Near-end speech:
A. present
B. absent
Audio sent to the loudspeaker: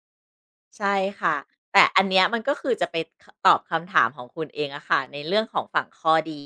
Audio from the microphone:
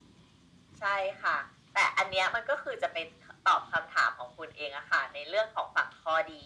B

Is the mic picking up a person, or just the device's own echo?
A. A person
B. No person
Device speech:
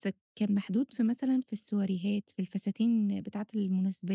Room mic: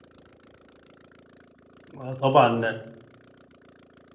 A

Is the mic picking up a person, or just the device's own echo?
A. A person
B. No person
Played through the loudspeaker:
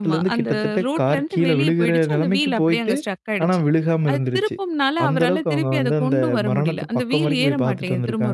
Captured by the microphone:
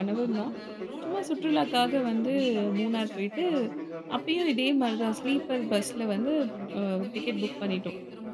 A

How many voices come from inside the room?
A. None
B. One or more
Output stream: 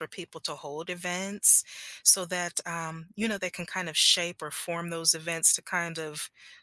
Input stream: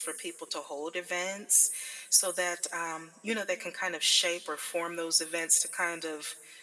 A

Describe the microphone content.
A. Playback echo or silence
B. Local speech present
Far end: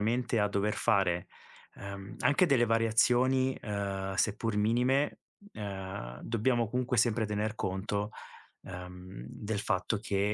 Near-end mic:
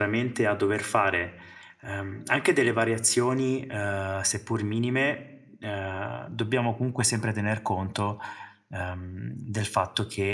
A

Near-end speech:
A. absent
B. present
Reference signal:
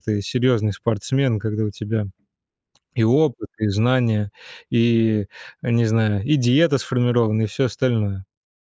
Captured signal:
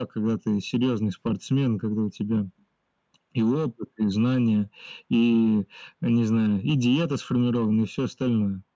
A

